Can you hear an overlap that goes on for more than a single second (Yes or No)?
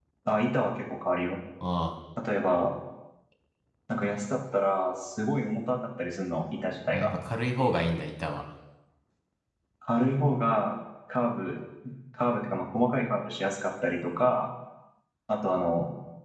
No